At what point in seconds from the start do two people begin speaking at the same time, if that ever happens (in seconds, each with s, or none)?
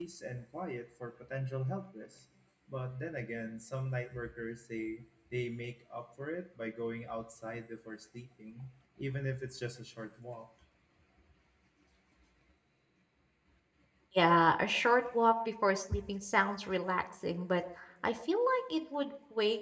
none